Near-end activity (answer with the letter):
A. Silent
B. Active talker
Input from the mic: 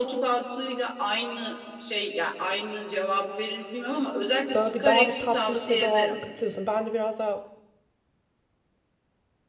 B